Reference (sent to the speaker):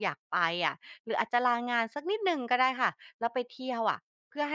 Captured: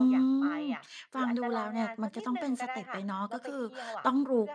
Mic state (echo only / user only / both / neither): both